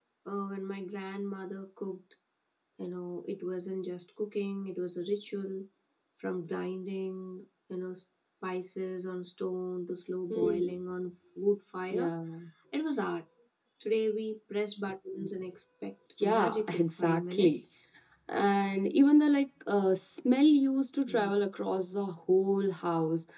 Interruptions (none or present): present